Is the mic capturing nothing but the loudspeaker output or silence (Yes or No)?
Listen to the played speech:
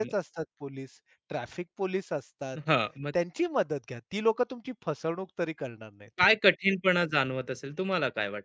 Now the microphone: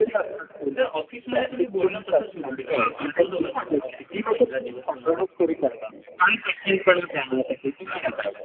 No